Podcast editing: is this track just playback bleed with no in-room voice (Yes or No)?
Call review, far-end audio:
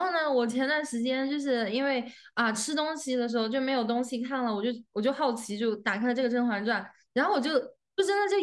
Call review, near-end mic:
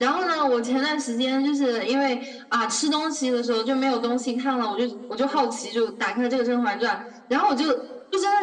Yes